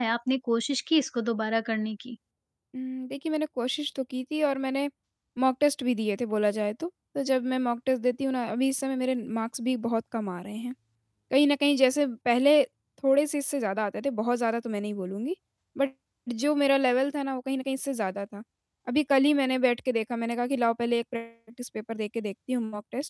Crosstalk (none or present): none